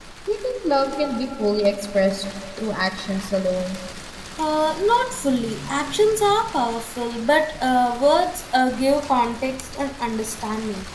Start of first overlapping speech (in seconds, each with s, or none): none